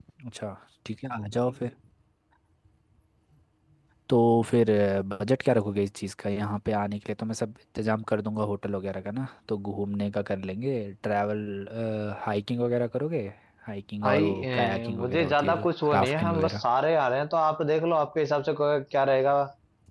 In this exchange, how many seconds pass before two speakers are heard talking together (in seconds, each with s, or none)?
14.0 s